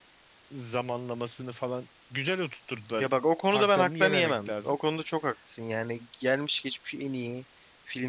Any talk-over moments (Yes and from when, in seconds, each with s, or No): Yes, from 3.5 s